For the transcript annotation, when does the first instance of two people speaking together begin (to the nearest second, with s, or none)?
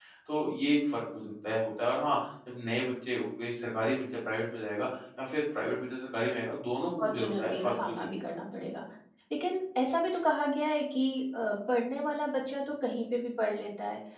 7 s